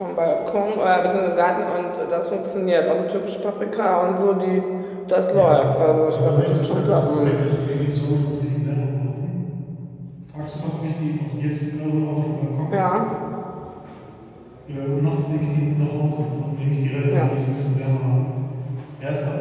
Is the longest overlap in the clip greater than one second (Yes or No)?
Yes